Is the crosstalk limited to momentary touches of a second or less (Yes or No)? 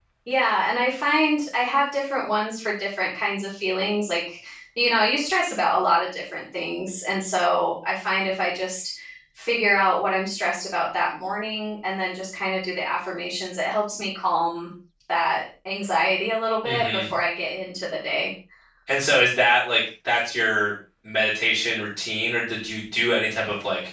Yes